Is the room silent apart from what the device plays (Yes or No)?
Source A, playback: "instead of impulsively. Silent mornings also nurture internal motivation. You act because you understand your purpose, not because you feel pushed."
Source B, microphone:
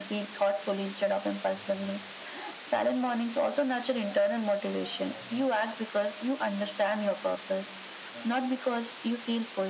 Yes